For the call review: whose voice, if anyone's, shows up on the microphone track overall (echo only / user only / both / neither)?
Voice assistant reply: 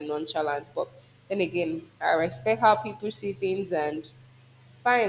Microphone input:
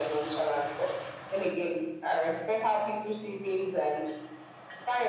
echo only